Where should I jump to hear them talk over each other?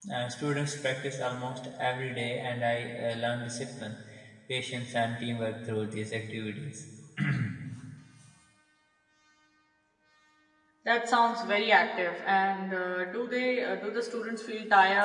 none

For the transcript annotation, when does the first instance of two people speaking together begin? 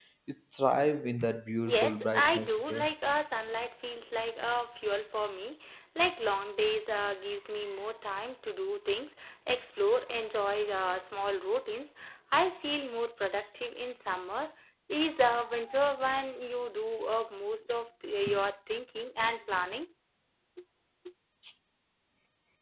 1.6 s

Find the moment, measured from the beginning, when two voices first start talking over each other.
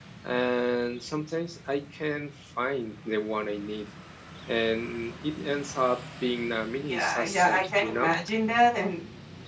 6.9 s

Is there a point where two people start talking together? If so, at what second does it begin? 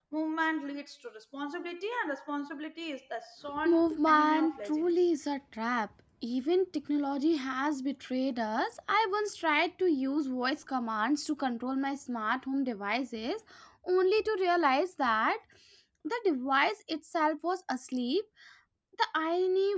3.6 s

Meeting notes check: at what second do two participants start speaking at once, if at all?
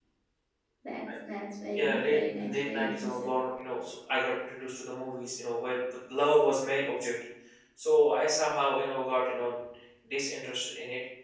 1.7 s

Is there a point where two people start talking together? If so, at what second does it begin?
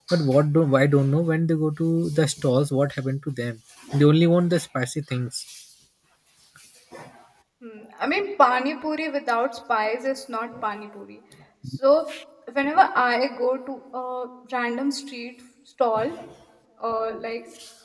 none

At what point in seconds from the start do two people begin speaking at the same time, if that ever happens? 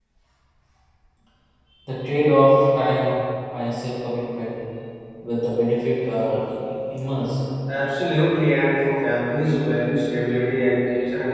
none

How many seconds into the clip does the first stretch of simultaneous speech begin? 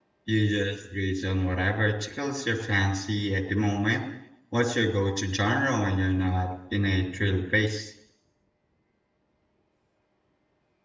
none

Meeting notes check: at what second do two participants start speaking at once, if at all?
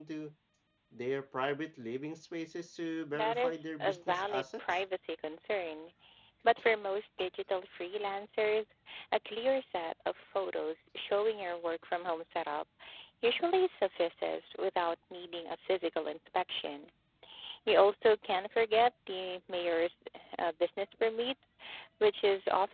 3.1 s

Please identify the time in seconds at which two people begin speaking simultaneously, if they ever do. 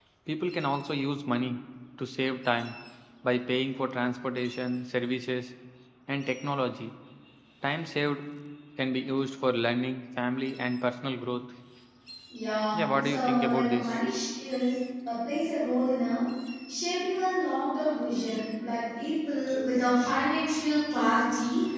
12.7 s

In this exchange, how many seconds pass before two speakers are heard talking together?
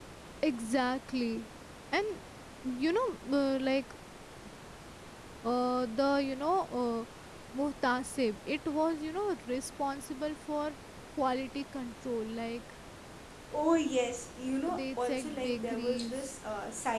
14.7 s

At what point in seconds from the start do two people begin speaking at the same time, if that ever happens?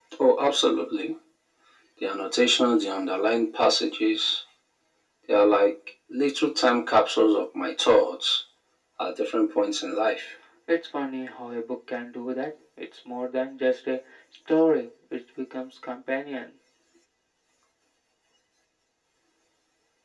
none

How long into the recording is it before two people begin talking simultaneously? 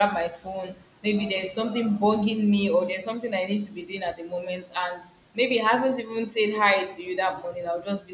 none

